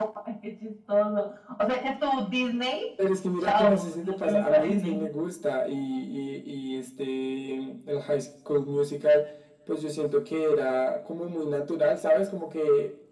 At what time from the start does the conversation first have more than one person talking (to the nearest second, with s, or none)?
3 s